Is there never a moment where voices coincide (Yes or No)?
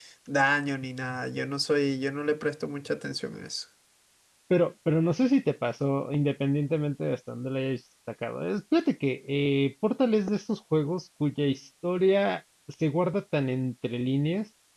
Yes